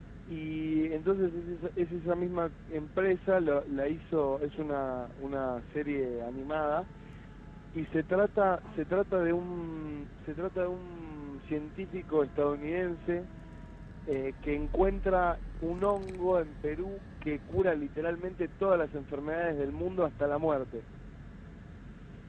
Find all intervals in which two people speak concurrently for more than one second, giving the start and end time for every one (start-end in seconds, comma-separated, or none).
none